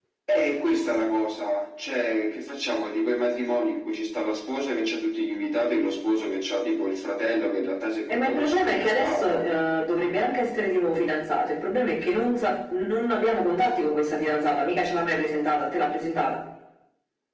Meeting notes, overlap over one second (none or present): present